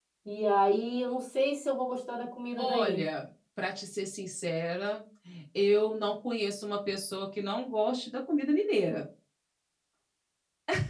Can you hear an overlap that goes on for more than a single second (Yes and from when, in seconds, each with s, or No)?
No